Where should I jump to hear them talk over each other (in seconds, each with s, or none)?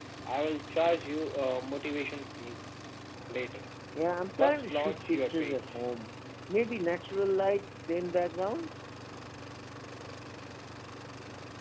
4.4 s